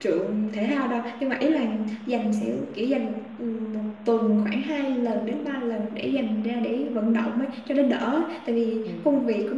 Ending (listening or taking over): listening